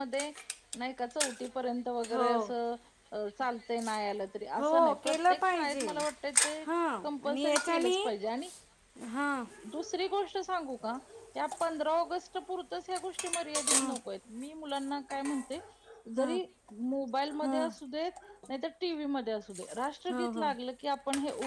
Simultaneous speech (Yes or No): Yes